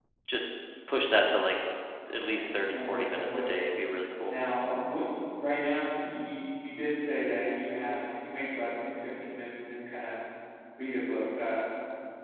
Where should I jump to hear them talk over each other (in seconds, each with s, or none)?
2.2 s